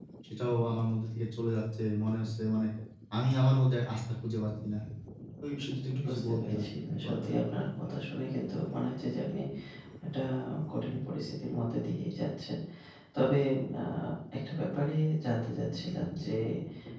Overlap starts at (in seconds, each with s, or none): 6.0 s